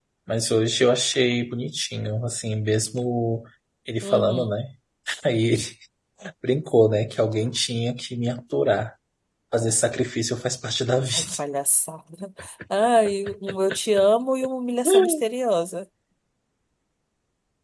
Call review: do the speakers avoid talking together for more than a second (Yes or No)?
Yes